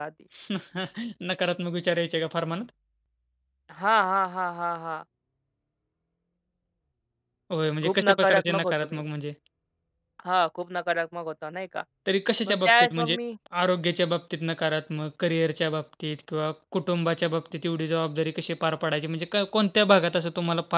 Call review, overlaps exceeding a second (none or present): present